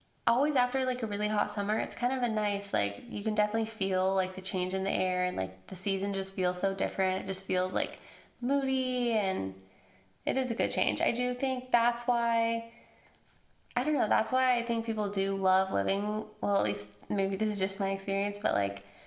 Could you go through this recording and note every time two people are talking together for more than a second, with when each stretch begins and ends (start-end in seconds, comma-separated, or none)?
none